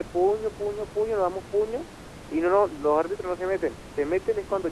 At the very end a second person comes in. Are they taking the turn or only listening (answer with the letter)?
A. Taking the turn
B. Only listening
B